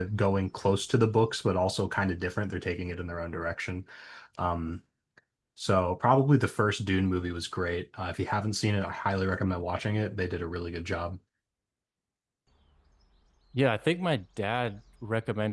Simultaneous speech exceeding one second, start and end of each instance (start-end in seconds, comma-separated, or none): none